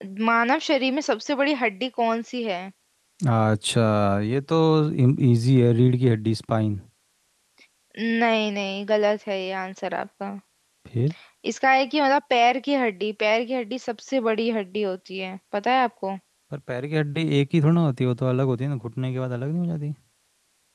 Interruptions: none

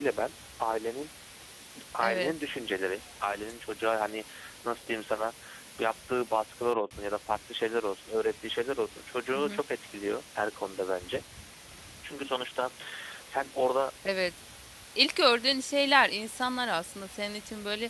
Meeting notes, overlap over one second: none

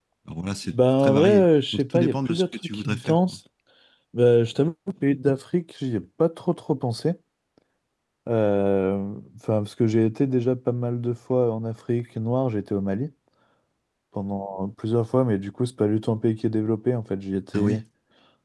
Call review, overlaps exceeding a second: present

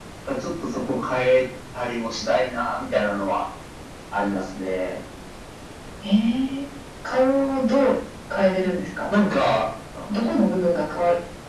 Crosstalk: none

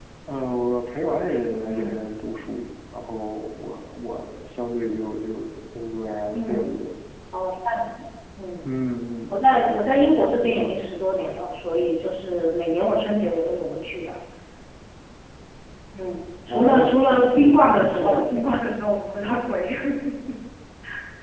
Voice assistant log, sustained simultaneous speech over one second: present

